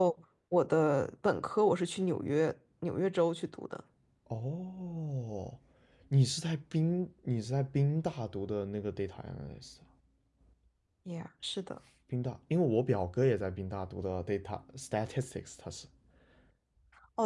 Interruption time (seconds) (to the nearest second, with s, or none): none